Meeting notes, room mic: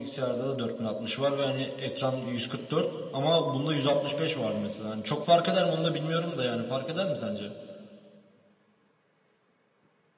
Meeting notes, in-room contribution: none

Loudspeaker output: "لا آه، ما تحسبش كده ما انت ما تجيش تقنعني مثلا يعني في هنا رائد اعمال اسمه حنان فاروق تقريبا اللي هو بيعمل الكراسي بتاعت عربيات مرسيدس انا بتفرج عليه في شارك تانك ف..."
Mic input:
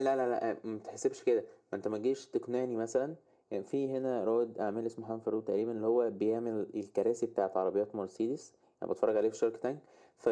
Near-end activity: none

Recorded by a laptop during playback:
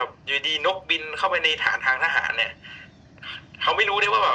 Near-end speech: none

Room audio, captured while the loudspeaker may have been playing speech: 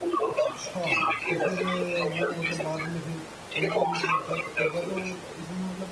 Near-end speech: present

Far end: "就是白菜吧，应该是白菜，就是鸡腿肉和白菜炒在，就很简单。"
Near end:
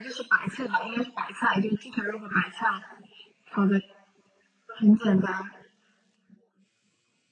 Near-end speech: none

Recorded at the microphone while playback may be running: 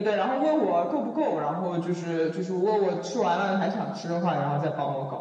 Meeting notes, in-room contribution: none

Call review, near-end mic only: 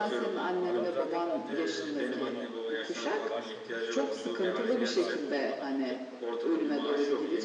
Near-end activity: present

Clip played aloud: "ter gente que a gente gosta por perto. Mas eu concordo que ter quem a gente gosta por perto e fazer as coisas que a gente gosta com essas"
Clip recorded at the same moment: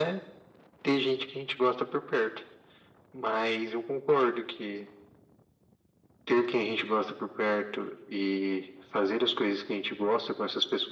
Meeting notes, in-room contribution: none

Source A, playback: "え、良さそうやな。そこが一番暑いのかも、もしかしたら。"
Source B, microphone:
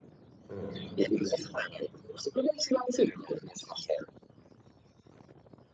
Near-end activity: present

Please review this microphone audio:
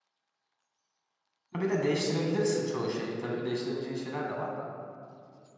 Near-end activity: present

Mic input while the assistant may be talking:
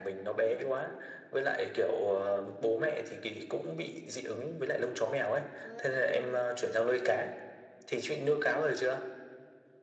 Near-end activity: present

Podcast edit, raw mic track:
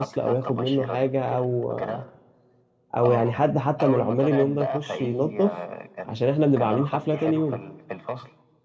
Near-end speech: present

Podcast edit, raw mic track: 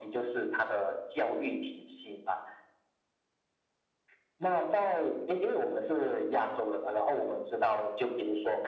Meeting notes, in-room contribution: none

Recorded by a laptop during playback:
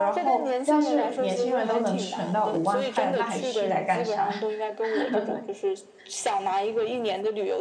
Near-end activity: present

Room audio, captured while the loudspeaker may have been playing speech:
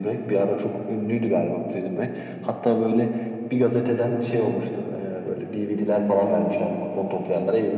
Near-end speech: none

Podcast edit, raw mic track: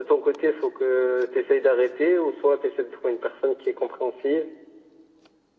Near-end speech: none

